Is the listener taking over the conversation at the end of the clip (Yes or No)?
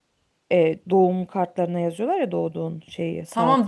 Yes